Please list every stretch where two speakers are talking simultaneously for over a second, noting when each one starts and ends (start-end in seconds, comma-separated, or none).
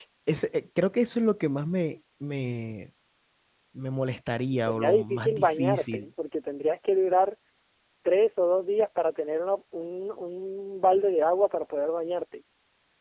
4.5-6.1